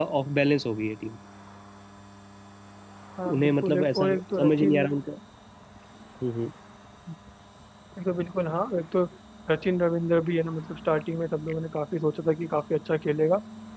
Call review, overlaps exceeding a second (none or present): present